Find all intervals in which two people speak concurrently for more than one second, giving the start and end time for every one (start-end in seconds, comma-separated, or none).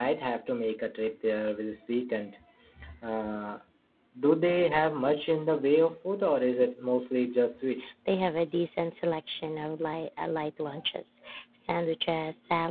none